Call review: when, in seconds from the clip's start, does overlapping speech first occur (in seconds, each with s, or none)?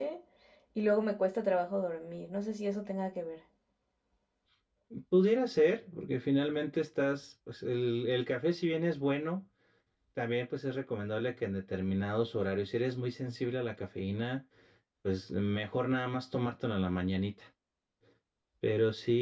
none